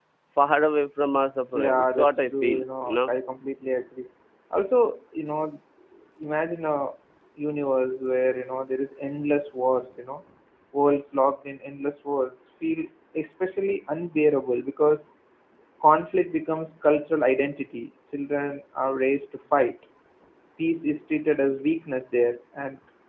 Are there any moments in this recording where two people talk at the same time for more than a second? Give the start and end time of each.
1.5-3.1

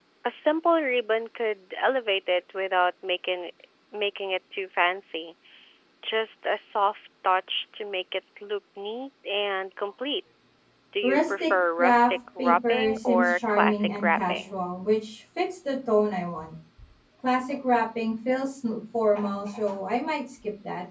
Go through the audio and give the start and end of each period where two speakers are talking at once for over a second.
11.0-14.6

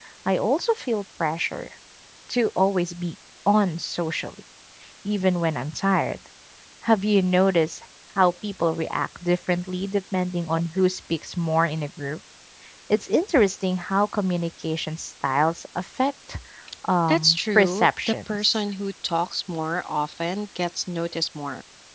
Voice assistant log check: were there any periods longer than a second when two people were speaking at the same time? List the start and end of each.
17.1-18.6

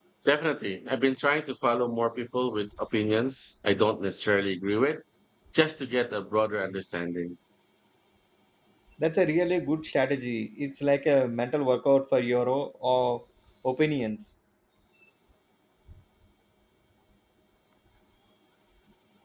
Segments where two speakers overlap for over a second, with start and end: none

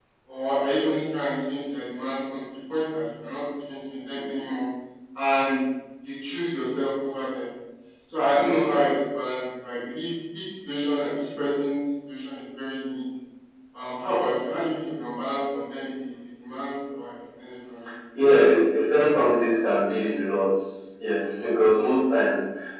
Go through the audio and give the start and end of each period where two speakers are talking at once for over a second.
none

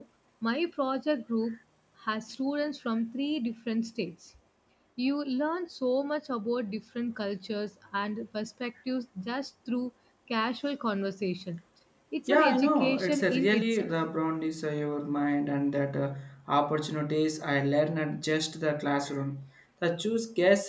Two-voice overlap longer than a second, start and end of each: 12.3-13.9

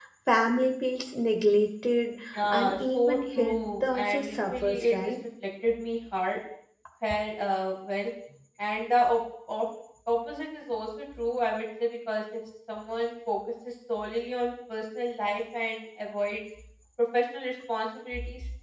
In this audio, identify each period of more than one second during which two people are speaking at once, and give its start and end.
2.5-5.0

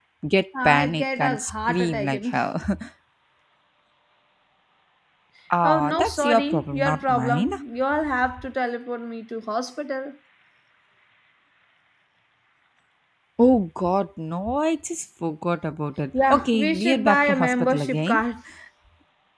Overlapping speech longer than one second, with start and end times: 0.6-2.4, 5.6-7.5, 16.3-18.2

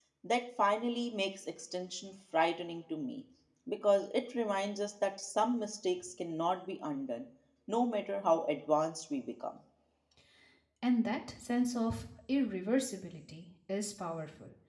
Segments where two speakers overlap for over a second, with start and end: none

